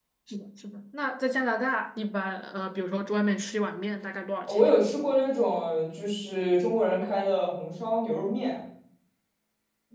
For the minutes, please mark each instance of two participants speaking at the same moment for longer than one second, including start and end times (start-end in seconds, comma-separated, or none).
none